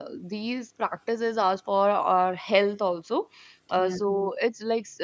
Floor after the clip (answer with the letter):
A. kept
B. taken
A